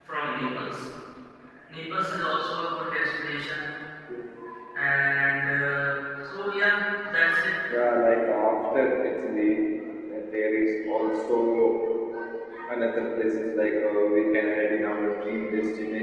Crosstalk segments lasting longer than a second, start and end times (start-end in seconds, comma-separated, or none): none